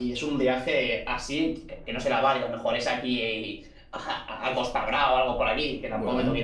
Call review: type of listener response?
listening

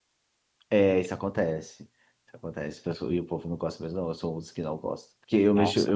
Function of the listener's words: listening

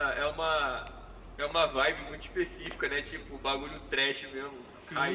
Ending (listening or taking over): taking over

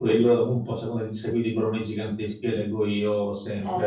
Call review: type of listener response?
listening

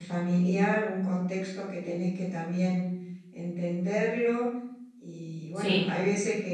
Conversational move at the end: listening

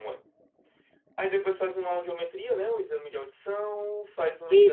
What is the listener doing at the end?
listening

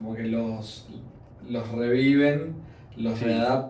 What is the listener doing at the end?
listening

